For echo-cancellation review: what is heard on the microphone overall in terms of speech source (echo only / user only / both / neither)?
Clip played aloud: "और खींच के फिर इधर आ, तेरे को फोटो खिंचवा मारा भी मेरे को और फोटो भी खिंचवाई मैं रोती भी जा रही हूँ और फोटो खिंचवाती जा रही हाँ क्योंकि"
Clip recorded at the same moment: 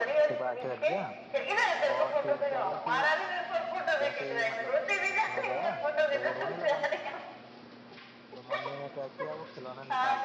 both